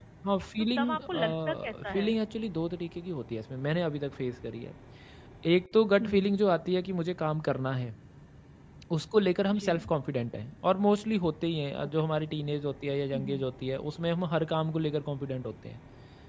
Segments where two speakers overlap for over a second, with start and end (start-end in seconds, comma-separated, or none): 0.8-2.1